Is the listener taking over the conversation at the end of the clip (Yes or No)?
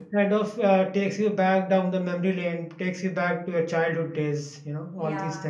Yes